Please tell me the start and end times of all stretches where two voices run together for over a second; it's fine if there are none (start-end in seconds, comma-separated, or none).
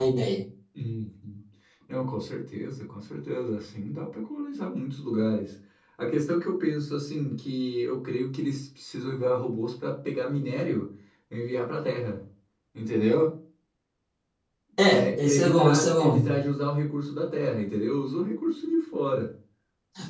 14.9-16.3